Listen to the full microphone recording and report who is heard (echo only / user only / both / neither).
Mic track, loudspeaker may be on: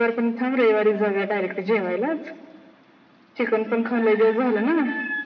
echo only